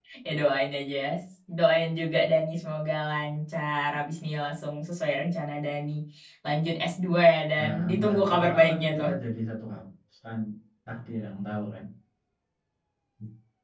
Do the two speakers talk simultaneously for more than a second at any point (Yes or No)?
Yes